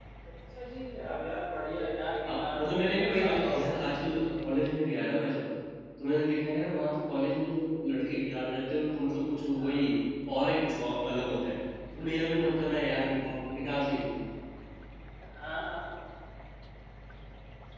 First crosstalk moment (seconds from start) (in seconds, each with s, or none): 2.2 s